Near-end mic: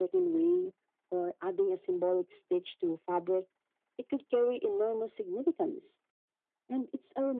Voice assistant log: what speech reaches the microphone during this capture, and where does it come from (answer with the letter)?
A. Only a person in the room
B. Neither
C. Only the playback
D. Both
C